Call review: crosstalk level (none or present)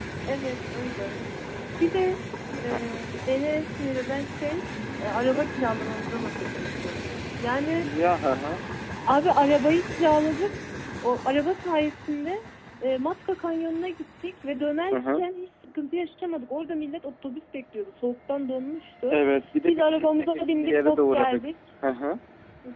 present